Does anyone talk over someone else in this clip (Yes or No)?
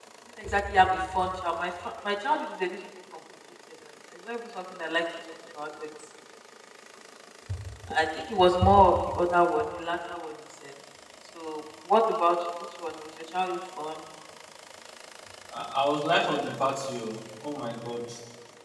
No